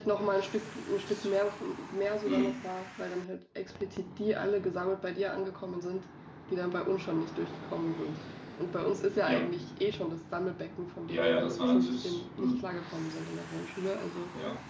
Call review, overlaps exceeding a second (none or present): present